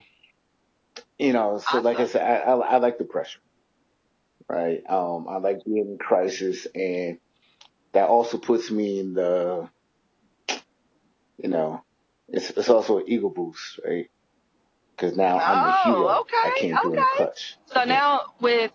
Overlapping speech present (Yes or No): Yes